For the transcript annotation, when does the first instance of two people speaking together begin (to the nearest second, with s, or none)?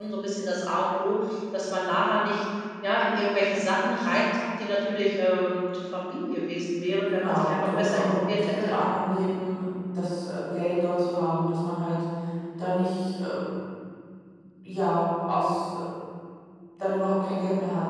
7 s